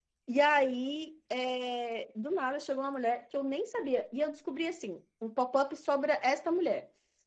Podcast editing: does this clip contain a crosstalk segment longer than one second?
No

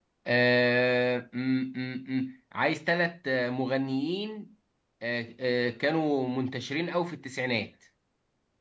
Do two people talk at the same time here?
No

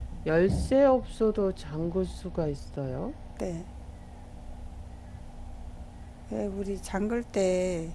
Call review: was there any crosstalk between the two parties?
No

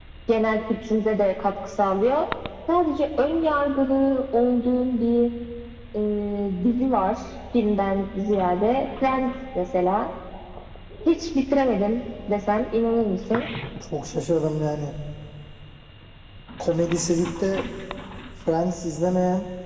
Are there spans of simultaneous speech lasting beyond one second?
No

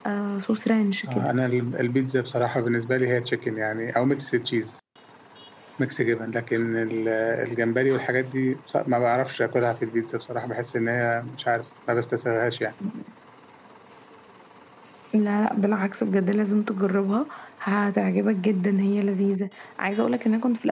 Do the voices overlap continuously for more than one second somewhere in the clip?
No

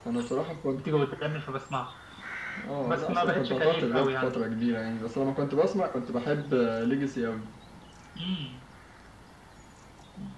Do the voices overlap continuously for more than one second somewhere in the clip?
Yes, from 2.8 s

